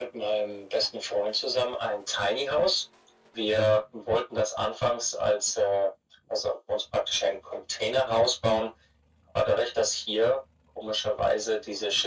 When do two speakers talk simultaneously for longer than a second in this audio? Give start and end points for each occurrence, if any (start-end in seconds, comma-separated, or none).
none